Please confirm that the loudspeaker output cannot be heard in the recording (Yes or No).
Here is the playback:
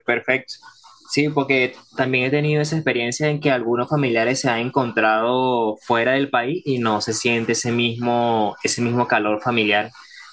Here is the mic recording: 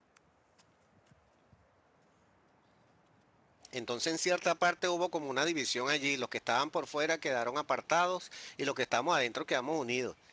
Yes